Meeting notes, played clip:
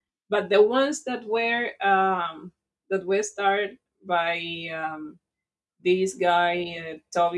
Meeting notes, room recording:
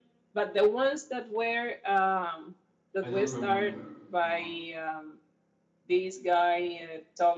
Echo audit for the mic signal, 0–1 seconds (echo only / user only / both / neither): echo only